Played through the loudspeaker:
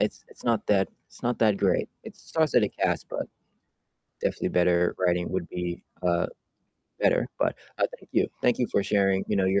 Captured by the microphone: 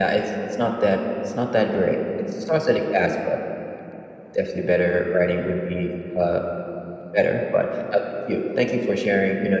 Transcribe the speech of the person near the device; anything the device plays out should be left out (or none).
none